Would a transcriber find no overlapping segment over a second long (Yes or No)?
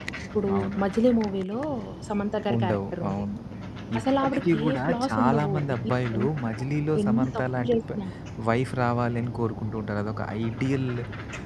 No